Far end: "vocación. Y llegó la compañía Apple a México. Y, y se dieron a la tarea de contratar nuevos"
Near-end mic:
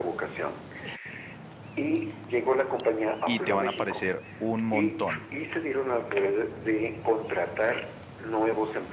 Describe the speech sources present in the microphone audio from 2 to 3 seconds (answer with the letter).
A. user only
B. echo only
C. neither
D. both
B